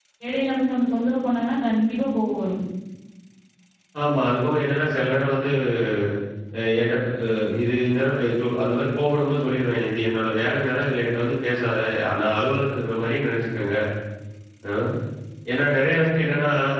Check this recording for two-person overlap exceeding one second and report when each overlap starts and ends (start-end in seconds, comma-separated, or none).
none